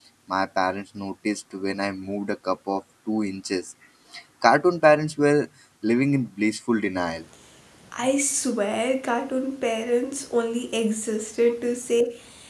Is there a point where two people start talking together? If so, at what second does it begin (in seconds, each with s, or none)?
none